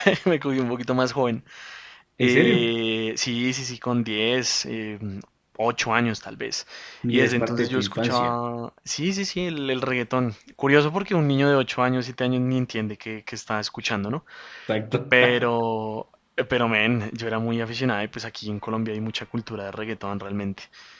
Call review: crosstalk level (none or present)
present